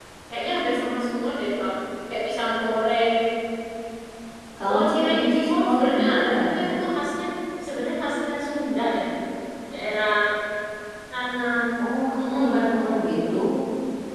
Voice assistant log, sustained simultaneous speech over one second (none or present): present